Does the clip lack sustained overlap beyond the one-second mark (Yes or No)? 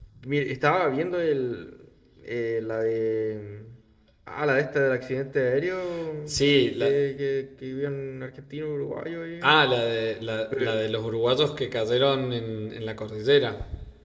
Yes